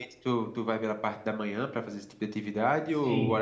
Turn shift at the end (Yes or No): Yes